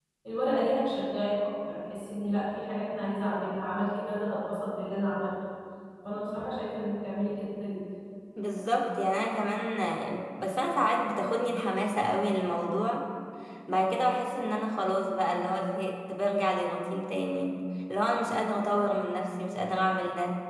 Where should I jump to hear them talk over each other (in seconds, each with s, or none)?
none